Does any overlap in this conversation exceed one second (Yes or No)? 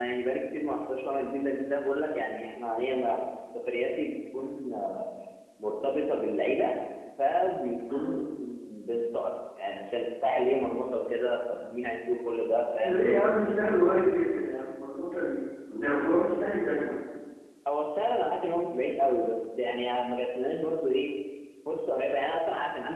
No